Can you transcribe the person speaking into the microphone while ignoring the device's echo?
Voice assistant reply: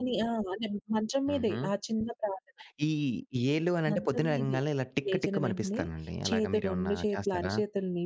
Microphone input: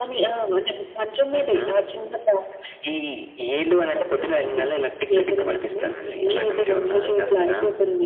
ఆ వేడి, ఆ ఉష్ణోగ్రత

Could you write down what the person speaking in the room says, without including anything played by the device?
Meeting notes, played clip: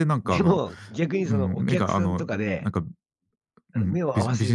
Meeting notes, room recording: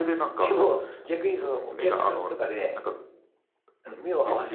none

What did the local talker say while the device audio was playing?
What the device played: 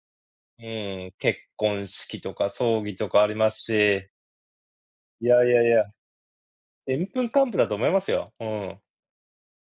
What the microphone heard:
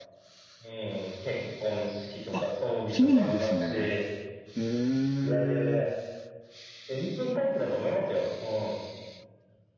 あ、そうなんですね。へえ。

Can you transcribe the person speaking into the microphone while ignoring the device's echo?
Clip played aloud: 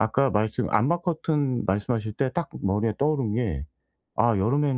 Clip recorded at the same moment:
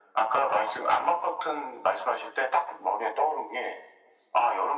none

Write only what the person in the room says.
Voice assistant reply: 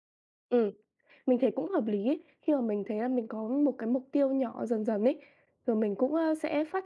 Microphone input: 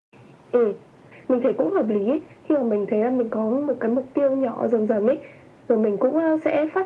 none

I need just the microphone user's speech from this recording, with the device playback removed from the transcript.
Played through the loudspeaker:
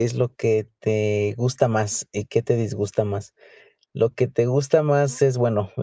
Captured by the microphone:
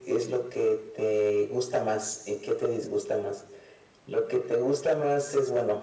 none

